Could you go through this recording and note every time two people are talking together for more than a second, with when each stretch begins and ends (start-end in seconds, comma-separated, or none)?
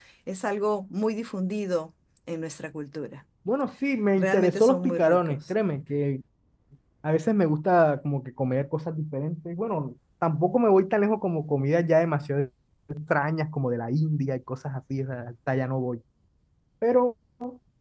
4.2-5.4